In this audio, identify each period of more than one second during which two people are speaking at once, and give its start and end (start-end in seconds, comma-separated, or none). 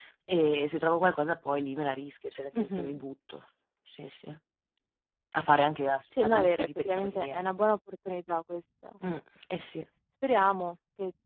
6.2-7.4